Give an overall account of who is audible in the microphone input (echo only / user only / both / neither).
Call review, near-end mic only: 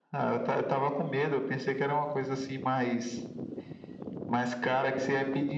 echo only